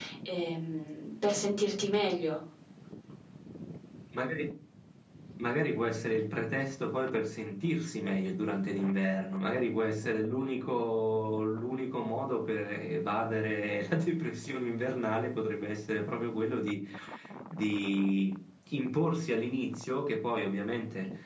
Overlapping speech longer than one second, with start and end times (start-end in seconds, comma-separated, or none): none